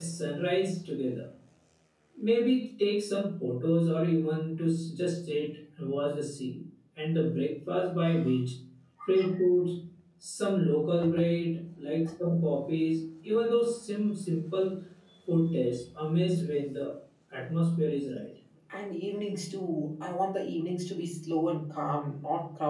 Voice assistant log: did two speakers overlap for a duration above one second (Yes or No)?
No